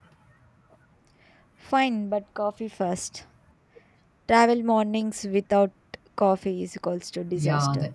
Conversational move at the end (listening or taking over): taking over